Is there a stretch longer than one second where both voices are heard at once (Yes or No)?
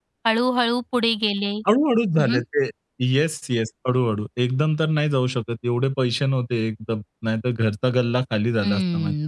No